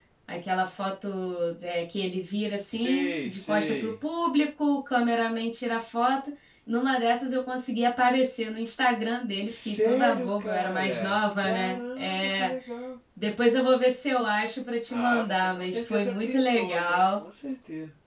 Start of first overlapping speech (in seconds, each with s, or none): 2.7 s